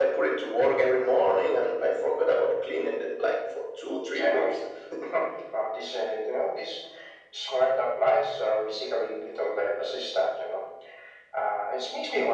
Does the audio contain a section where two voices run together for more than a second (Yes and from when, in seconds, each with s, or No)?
No